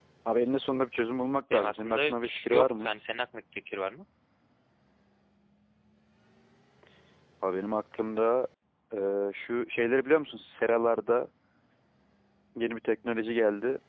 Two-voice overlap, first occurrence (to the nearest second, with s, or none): 2 s